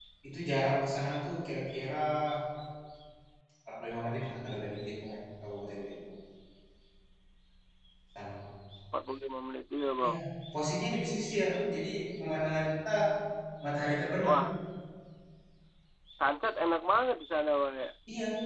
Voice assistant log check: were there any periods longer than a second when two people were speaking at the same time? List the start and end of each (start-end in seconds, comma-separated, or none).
none